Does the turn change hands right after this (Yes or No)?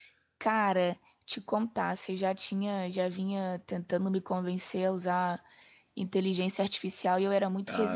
Yes